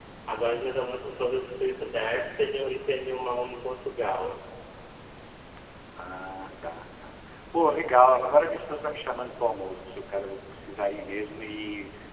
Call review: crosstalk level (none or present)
none